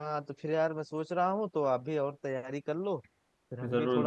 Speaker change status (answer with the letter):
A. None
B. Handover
A